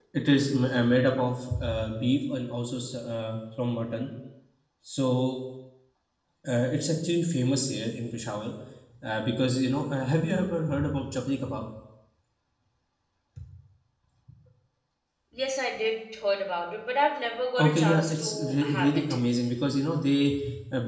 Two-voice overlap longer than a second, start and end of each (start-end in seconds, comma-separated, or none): 17.6-19.2